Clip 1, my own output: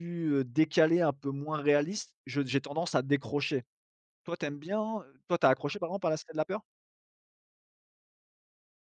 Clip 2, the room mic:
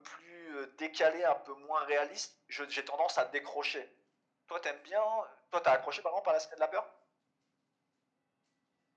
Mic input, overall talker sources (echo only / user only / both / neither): echo only